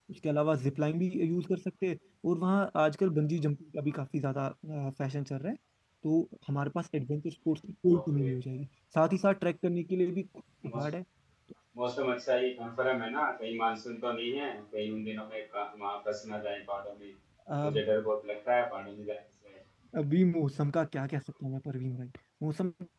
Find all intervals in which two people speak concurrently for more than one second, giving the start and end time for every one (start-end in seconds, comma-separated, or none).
none